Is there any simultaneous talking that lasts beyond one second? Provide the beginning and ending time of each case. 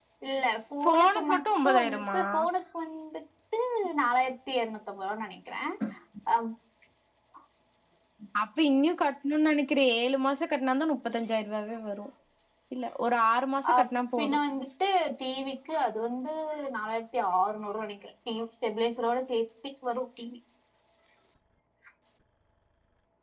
0.8-2.2

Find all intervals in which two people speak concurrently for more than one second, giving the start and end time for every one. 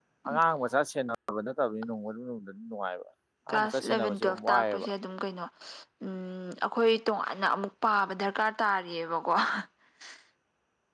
3.5-4.9

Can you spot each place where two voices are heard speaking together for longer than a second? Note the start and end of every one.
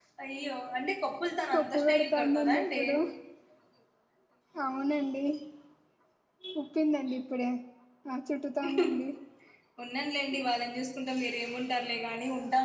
1.5-2.8

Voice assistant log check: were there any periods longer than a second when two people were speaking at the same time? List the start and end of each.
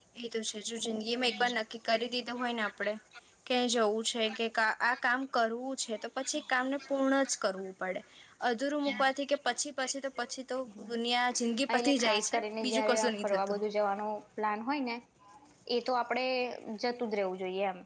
11.8-13.6

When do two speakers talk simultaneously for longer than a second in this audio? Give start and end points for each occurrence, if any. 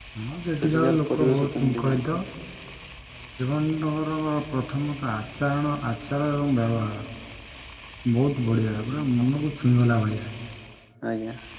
0.6-2.0

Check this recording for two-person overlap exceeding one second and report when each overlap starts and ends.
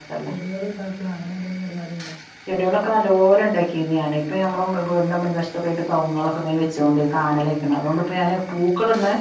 none

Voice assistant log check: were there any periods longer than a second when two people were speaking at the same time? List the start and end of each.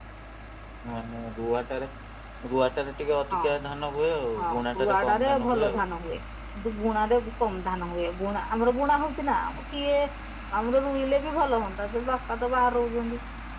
4.4-5.8

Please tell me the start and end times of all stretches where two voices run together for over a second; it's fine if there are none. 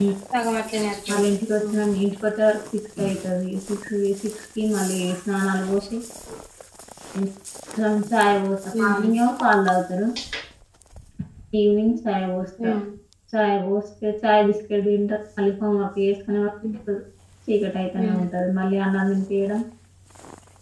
none

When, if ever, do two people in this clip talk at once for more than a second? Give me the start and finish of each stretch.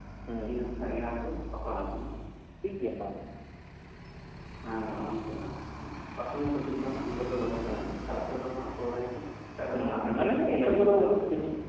9.8-11.2

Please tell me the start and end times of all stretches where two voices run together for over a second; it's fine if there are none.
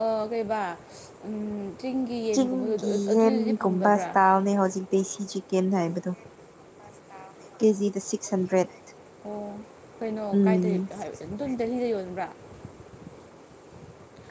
2.3-4.0

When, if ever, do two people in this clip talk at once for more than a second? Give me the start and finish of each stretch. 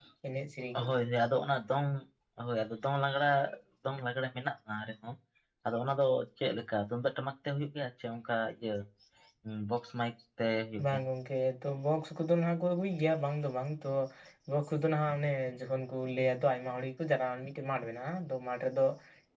none

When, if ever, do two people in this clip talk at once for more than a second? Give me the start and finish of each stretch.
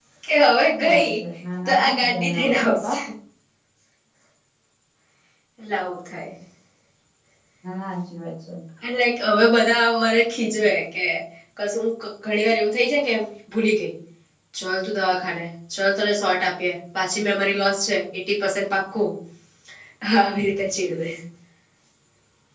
1.6-2.9

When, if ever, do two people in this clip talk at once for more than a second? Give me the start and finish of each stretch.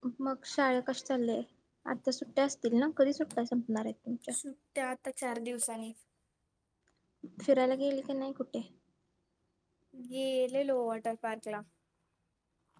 none

